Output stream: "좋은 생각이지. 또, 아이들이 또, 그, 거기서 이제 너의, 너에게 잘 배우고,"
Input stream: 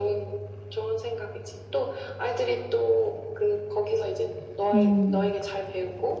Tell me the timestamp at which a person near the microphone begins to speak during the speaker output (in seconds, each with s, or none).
4.7 s